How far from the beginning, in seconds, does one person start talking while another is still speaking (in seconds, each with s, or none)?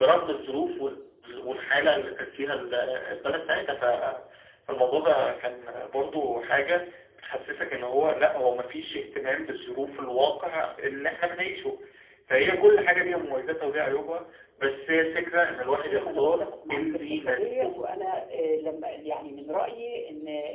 15.8 s